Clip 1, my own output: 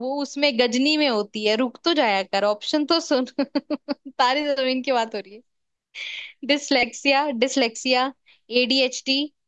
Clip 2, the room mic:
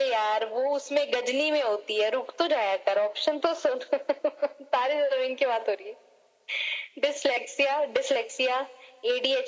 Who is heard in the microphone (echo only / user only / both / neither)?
echo only